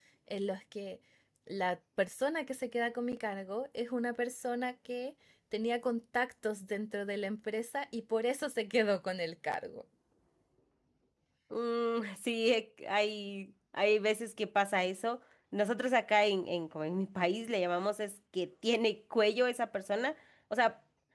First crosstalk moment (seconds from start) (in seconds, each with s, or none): none